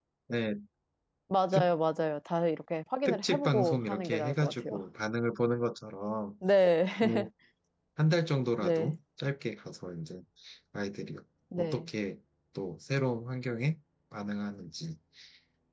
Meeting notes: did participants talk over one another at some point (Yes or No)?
Yes